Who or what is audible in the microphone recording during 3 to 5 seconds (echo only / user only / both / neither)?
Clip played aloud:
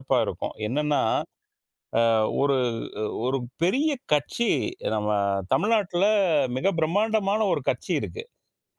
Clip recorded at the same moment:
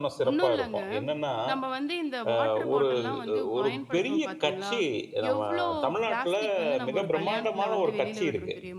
both